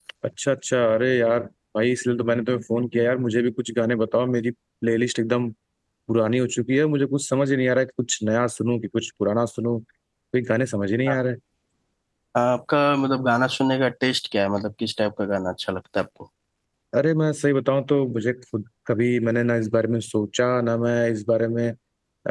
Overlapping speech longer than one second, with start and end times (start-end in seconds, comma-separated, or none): none